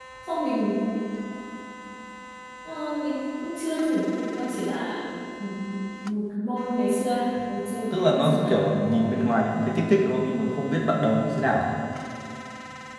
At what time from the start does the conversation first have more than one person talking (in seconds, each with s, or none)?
7.9 s